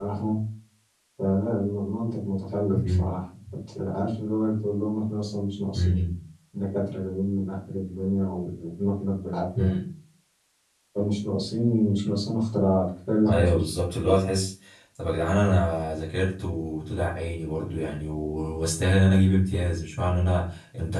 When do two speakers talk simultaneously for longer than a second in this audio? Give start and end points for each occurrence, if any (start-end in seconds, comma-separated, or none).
none